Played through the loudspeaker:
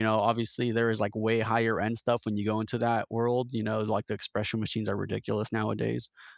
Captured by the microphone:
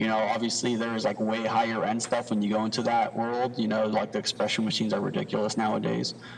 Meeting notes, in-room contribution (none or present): none